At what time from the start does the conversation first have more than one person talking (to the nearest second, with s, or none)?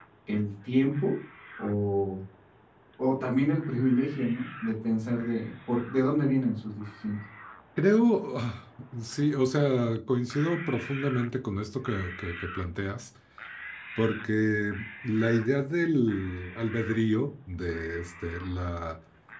none